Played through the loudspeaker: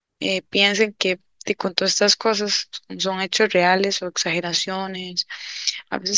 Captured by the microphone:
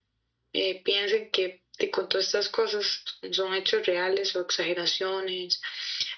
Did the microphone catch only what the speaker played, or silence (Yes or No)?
Yes